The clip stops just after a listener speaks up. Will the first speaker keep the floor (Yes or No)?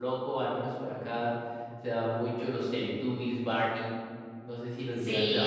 No